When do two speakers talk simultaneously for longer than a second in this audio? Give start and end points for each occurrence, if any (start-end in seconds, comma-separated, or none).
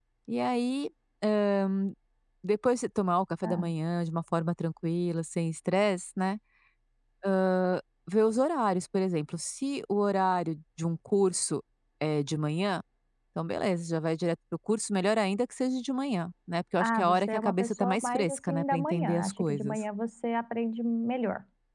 16.8-19.8